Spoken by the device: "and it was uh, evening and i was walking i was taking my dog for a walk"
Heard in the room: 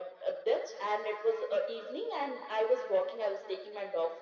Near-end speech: none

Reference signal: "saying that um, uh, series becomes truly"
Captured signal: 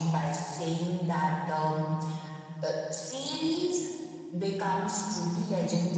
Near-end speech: none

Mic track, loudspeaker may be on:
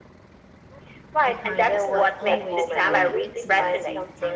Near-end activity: present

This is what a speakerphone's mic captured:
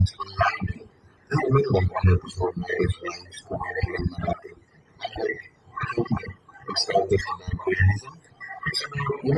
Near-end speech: none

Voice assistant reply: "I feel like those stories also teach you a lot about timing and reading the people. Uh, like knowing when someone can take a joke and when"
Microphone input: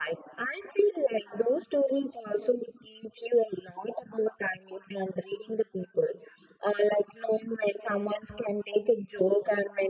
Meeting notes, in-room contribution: none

